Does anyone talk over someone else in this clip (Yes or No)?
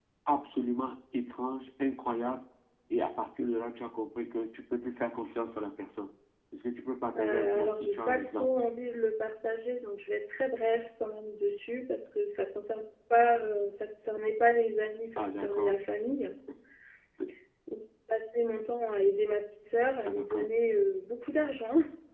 Yes